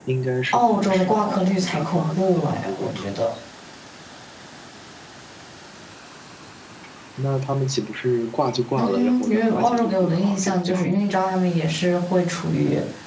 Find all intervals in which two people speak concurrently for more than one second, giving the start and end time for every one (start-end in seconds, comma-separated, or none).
0.5-3.1, 8.8-10.9